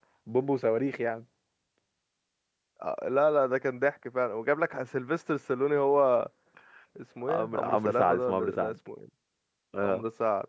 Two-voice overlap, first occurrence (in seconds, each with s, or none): 7.3 s